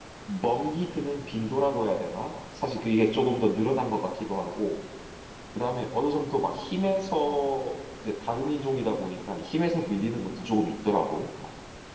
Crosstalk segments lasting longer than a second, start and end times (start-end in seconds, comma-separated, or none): none